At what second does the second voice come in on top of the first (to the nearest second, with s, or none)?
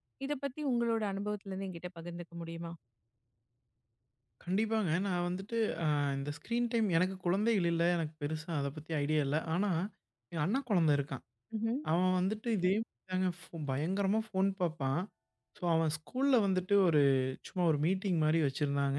none